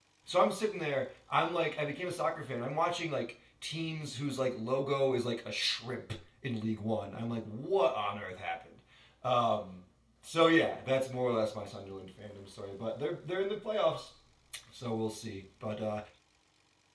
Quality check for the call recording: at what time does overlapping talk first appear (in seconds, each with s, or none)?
none